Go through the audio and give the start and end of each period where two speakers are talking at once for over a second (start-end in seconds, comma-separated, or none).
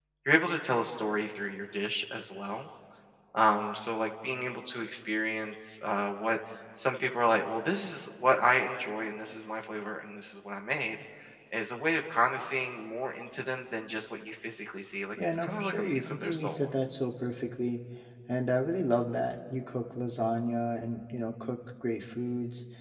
15.3-16.7